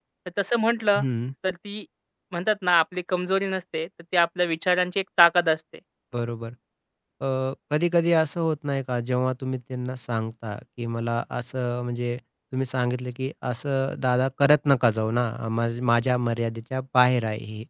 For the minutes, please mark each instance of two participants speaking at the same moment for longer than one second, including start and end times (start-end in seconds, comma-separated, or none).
none